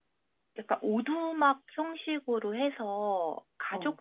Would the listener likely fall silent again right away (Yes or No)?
Yes